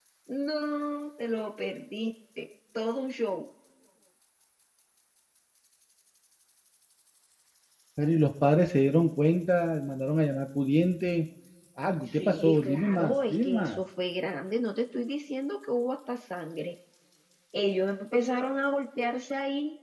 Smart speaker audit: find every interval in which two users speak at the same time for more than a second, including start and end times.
12.1-13.8

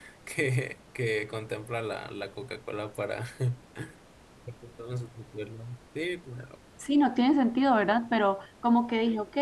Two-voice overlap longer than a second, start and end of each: none

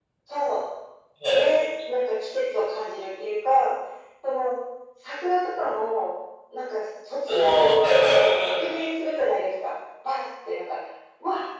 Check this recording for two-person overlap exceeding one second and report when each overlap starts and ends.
none

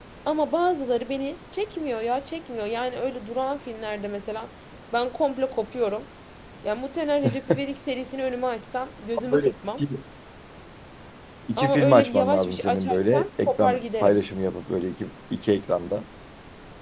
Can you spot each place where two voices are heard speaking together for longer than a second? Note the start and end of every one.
11.6-14.2

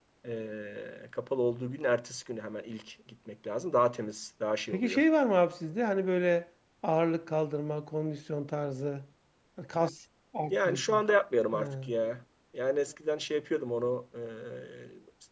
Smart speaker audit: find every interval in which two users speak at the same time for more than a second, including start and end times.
none

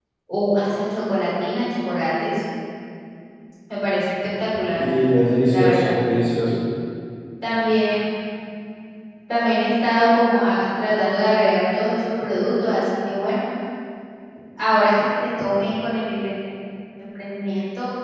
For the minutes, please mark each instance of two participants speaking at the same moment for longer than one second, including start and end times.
none

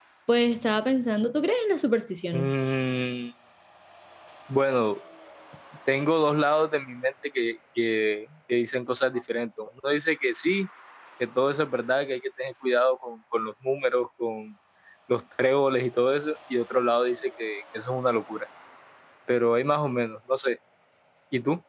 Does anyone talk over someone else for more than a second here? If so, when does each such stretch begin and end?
none

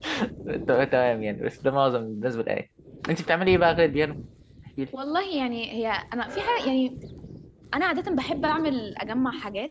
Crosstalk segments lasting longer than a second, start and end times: none

